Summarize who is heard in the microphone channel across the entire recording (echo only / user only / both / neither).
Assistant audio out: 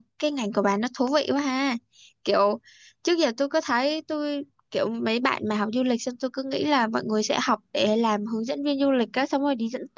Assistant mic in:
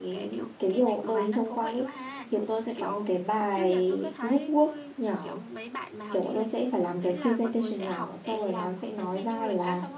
both